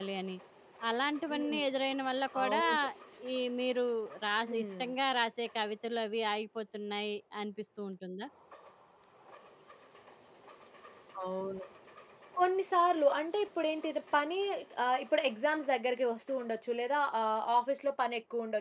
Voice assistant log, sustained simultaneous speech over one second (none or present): none